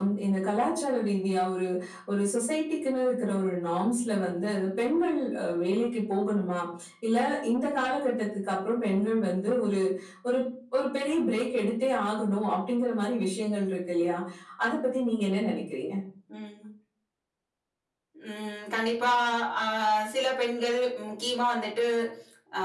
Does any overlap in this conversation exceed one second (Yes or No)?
No